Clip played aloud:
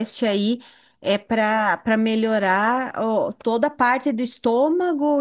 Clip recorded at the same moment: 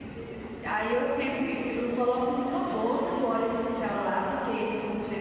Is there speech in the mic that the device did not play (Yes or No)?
Yes